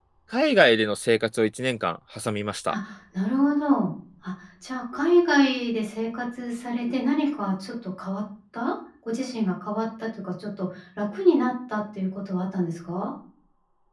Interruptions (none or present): none